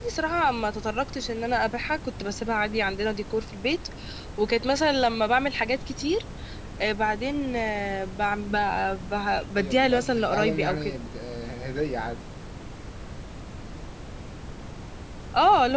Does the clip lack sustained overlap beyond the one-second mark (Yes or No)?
No